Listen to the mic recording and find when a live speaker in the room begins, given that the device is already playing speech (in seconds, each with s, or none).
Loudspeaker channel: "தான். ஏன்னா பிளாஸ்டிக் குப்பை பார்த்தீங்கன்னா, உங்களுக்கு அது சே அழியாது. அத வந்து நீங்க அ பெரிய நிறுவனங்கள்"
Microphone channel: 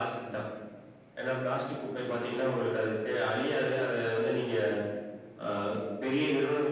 none